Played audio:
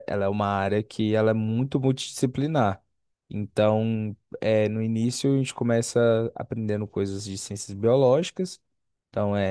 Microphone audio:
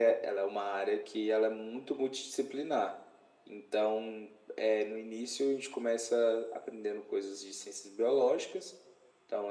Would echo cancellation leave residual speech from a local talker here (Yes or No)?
No